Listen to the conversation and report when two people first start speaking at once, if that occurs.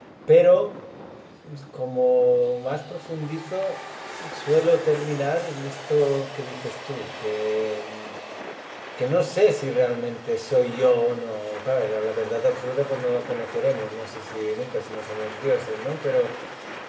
none

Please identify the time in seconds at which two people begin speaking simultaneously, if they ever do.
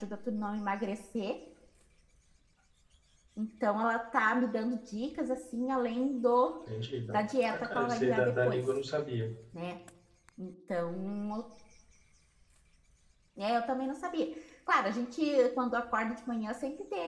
7.1 s

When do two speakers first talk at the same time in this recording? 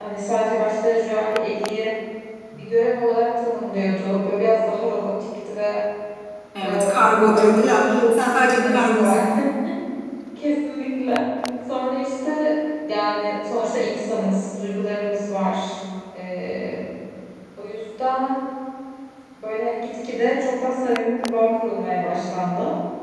6.6 s

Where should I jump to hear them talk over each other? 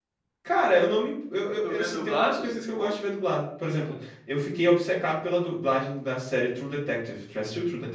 1.6 s

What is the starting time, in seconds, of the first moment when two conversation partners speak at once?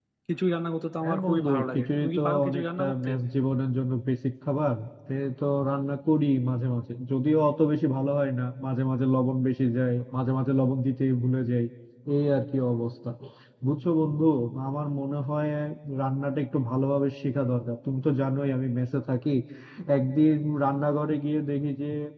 1.0 s

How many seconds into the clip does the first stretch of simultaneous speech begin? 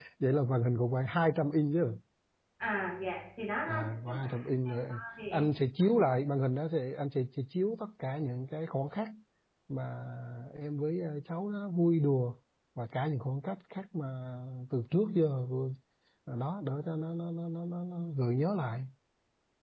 3.7 s

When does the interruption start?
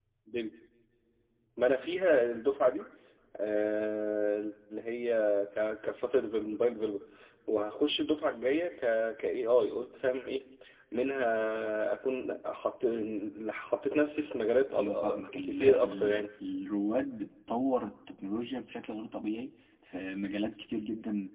14.7 s

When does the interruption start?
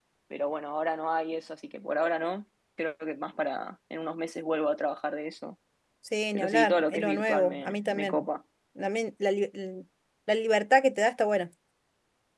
6.3 s

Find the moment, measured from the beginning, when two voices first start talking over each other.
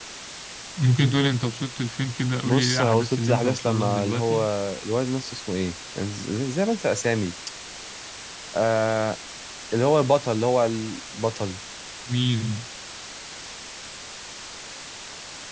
2.5 s

